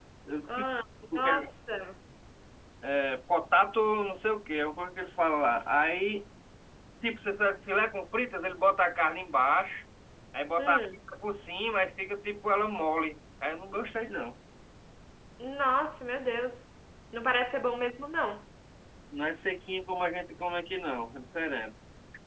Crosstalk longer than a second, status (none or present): none